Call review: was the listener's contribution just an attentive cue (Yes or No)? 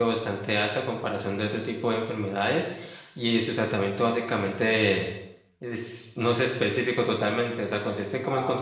Yes